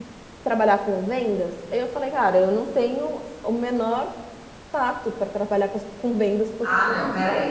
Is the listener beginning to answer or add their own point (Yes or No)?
Yes